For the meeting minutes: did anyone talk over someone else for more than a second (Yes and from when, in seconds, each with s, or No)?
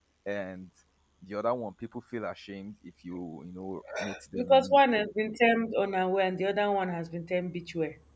No